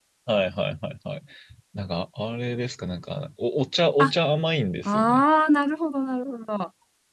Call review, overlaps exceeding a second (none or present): none